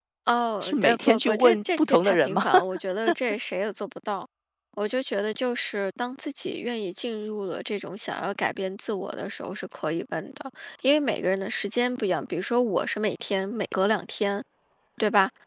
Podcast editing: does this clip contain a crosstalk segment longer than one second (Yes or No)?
Yes